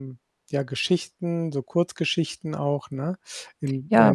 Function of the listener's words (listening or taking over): taking over